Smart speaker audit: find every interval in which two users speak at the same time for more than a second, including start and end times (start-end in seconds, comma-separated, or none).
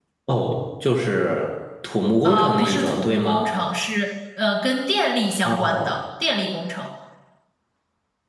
2.2-3.5